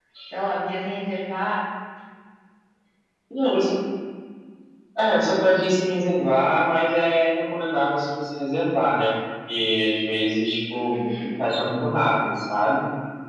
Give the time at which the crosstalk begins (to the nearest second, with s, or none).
none